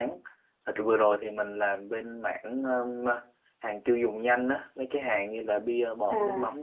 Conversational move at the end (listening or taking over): listening